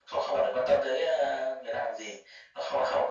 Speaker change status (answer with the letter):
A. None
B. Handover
A